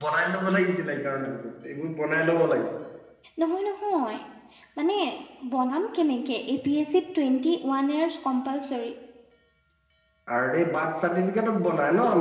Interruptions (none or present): none